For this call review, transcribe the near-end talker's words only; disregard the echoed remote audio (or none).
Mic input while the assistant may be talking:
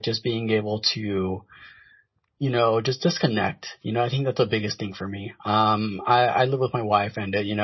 none